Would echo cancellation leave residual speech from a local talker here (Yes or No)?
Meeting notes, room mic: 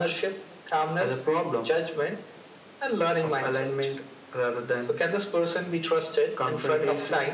No